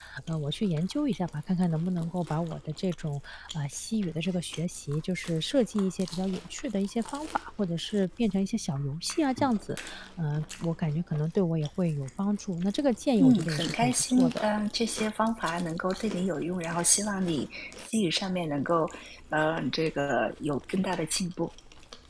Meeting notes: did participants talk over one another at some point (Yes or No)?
Yes